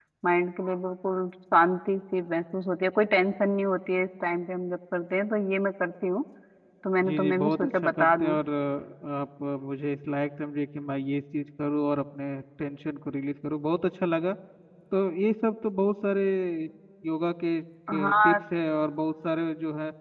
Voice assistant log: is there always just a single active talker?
No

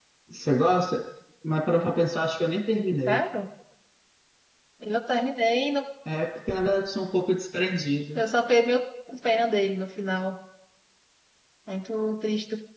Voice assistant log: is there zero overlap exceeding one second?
Yes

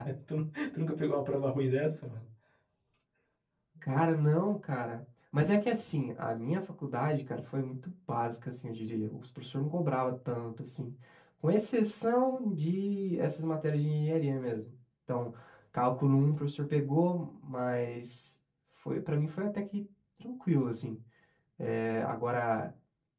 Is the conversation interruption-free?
Yes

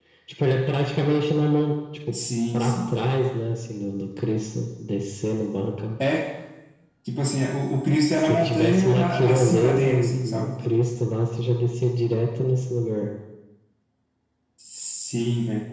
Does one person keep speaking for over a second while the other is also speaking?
Yes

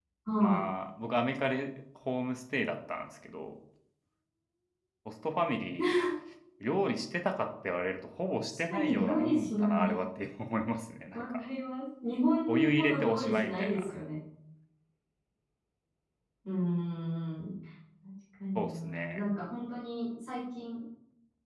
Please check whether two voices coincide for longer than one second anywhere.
Yes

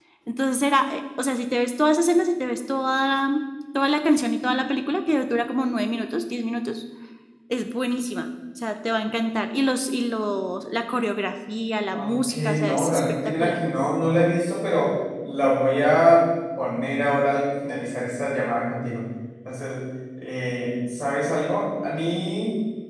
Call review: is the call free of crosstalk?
No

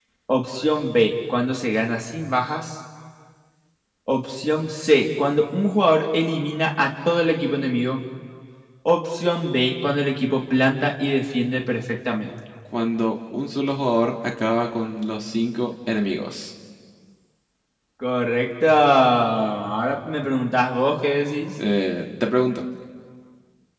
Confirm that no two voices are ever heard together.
Yes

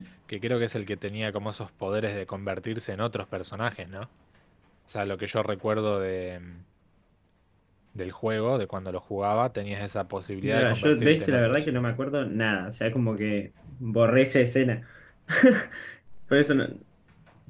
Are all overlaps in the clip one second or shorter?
No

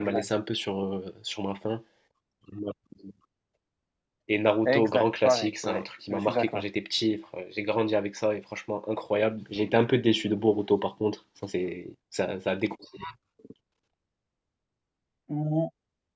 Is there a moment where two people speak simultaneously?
Yes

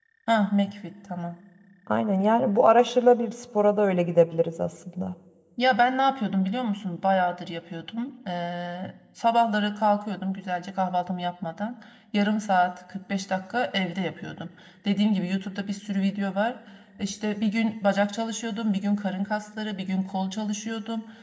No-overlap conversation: Yes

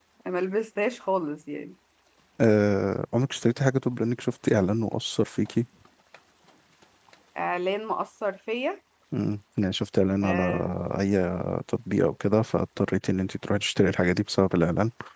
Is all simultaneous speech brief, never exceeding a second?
Yes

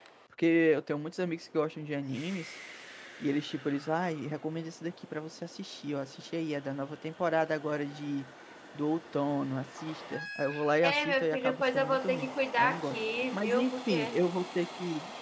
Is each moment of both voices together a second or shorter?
No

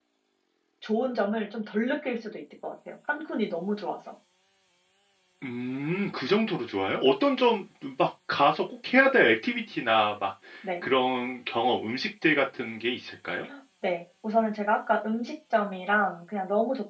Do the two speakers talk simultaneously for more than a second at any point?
No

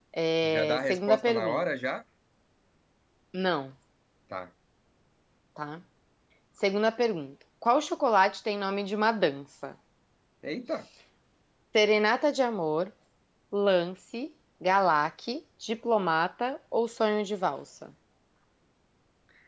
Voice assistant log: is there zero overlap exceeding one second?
No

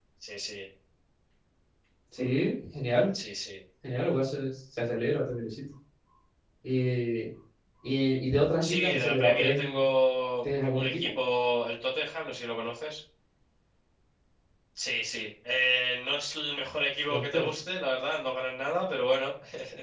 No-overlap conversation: No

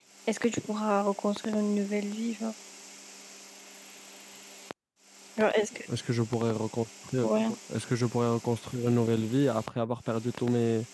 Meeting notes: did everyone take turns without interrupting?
Yes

